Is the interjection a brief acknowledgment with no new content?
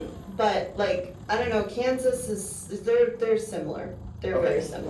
No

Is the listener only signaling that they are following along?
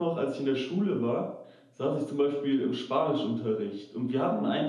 Yes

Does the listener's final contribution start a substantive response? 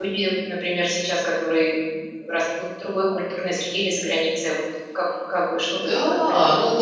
Yes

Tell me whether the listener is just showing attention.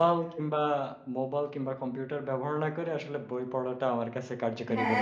No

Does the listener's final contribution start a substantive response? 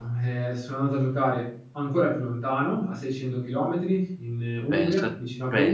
Yes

